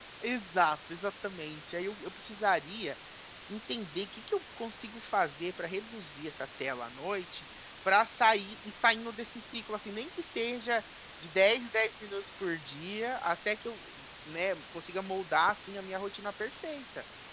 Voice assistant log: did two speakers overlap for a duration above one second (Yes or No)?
No